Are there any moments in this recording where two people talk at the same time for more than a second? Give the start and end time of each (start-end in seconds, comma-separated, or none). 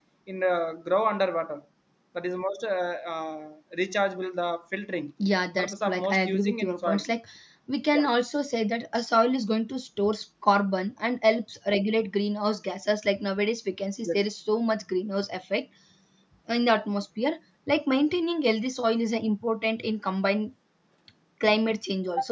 5.6-7.0